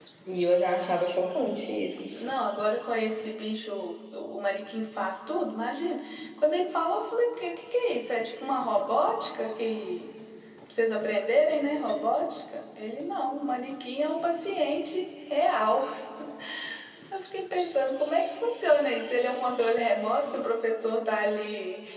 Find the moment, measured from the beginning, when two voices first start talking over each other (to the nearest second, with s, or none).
none